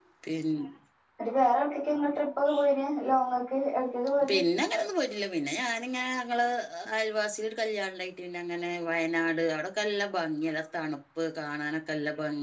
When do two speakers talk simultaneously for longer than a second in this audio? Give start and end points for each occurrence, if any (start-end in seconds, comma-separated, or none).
none